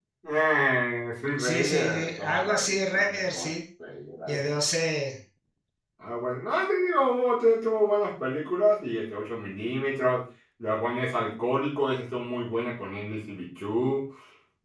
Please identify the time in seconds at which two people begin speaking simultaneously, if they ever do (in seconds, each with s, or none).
1.4 s